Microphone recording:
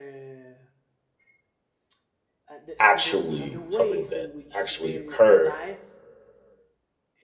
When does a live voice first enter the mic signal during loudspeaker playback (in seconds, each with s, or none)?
2.8 s